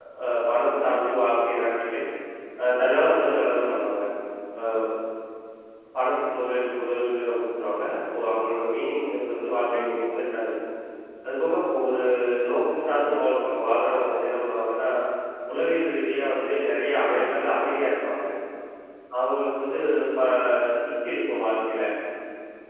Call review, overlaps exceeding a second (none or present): none